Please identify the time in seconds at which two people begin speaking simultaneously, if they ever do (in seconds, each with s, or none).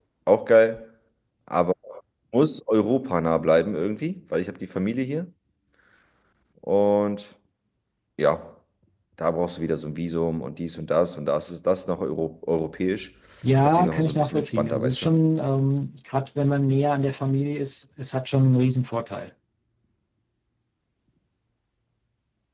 13.6 s